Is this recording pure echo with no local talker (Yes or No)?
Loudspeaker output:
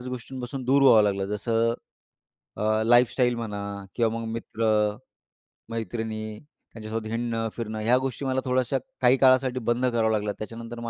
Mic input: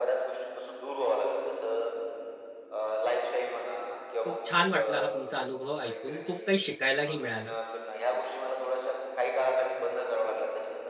No